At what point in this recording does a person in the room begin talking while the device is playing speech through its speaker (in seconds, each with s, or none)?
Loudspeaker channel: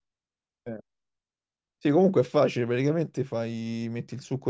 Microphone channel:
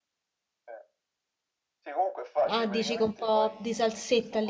2.5 s